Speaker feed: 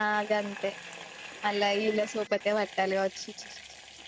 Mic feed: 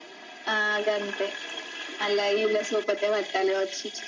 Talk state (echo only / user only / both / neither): echo only